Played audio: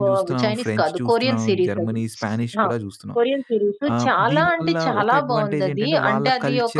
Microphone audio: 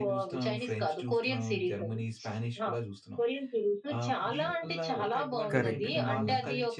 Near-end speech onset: 5.5 s

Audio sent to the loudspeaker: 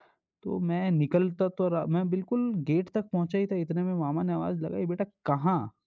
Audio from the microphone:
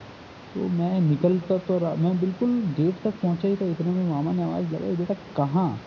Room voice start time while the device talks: none

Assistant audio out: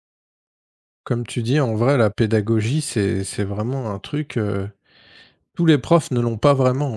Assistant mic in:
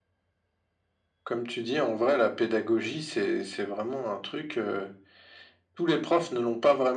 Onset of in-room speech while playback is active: none

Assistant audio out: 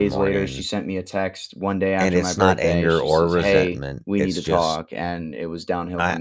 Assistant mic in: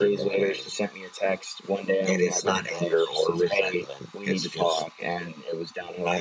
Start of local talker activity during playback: none

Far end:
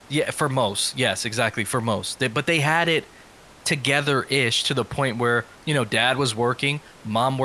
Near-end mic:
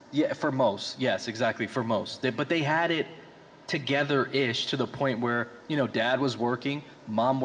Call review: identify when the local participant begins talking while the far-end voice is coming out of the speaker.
none

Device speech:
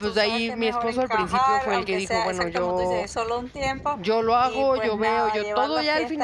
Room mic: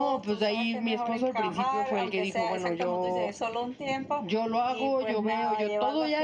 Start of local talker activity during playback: none

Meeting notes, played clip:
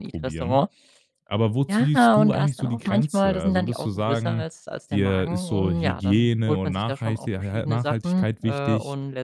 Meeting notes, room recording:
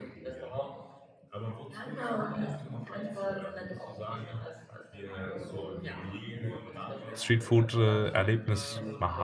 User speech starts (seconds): 7.1 s

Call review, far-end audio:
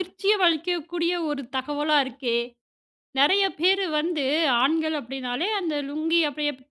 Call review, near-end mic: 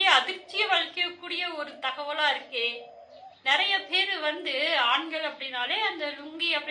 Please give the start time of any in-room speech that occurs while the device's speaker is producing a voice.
none

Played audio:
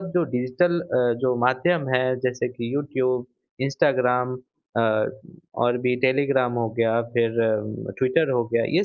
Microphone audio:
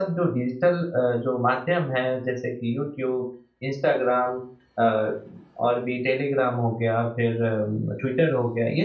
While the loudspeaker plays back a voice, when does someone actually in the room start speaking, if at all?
none

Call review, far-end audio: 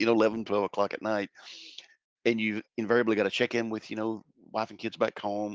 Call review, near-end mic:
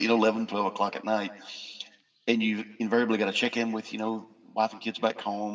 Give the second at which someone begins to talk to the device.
none

